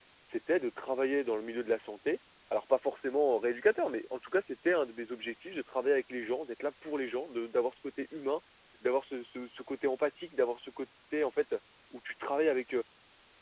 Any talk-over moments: No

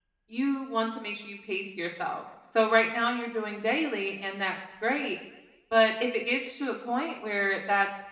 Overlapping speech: No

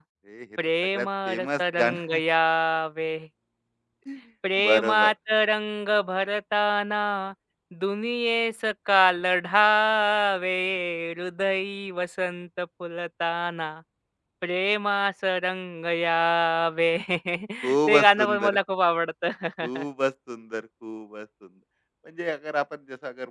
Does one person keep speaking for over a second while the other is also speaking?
Yes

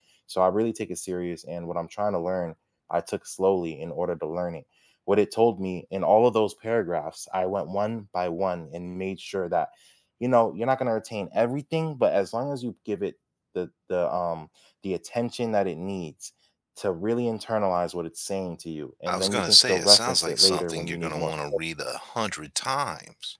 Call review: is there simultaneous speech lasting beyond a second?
Yes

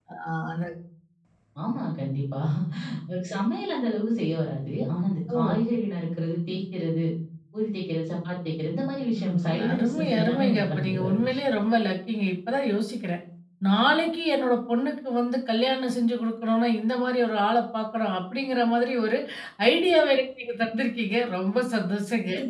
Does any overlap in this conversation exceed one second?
Yes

